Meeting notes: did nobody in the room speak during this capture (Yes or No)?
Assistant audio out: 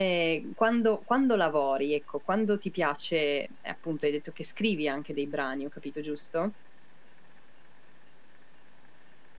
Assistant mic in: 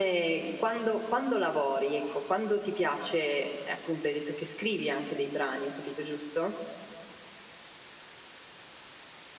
Yes